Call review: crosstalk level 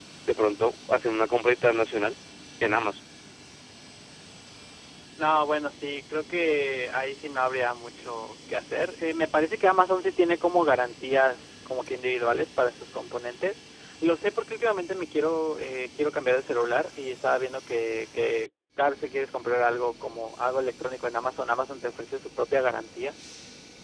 none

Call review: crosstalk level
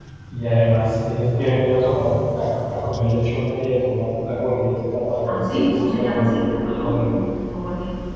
present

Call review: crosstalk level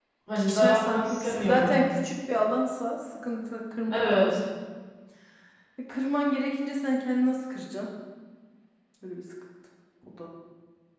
present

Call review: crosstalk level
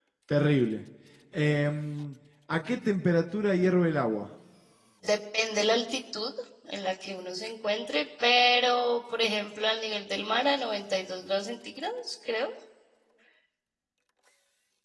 none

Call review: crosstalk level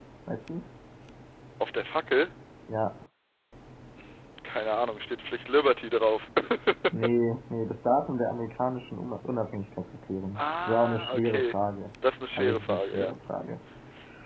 present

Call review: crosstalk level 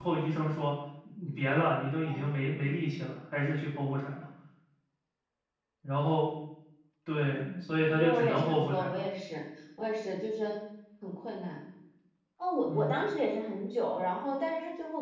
present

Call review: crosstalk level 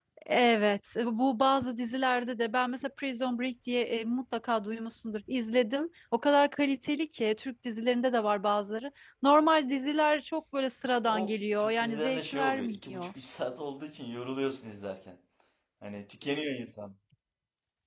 present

